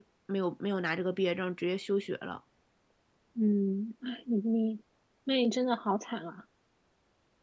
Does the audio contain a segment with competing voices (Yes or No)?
No